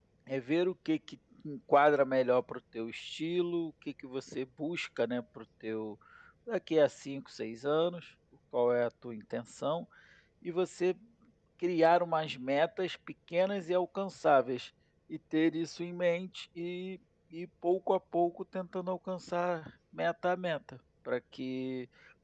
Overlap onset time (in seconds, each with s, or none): none